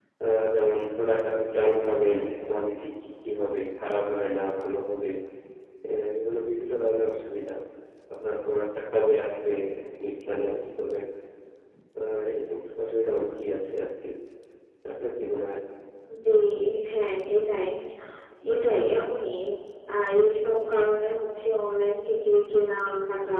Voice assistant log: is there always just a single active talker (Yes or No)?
Yes